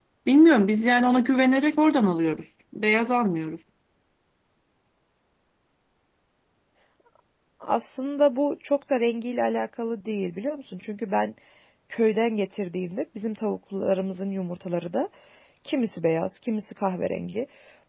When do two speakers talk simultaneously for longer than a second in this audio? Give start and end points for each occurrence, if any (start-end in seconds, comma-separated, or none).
none